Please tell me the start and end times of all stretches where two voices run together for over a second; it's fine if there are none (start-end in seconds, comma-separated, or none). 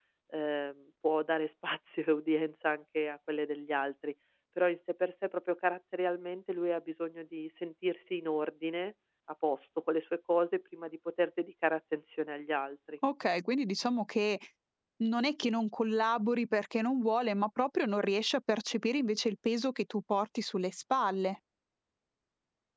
none